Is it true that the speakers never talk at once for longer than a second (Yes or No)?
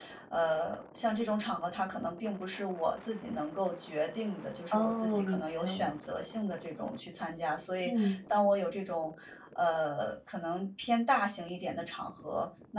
No